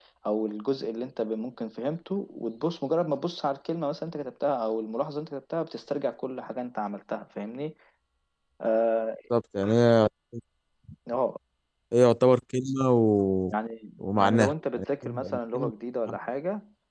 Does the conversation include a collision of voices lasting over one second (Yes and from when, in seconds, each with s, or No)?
Yes, from 14.2 s